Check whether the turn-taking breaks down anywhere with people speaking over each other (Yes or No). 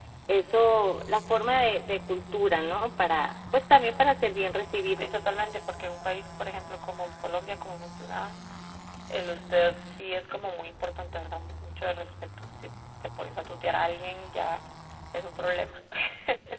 No